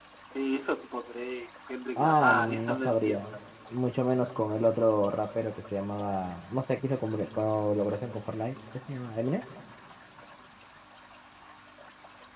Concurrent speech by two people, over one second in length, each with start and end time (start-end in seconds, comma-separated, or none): 2.0-3.2